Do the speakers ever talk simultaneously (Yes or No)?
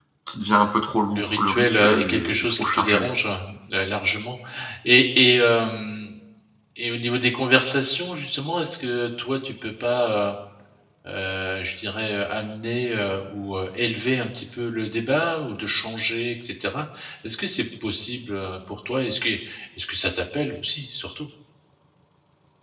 Yes